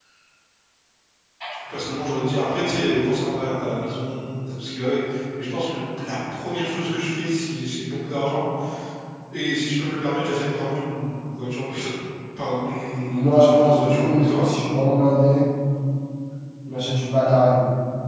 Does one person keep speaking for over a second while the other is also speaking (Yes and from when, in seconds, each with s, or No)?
Yes, from 13.0 s